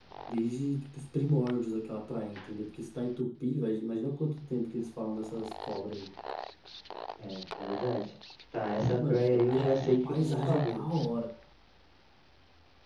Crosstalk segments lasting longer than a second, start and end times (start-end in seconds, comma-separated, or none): 8.8-10.8